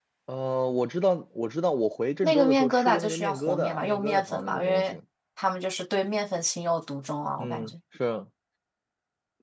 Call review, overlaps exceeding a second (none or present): present